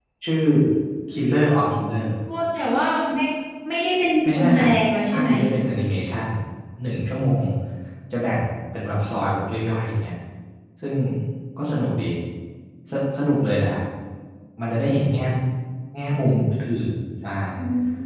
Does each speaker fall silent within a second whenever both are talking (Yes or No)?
Yes